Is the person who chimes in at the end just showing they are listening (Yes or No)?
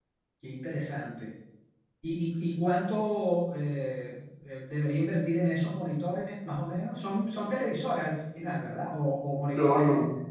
No